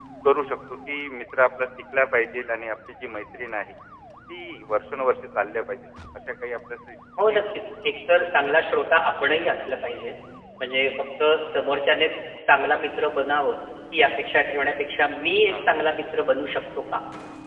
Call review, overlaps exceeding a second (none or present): none